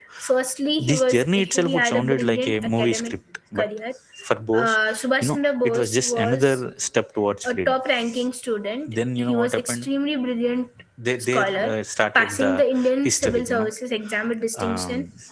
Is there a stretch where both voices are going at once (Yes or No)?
Yes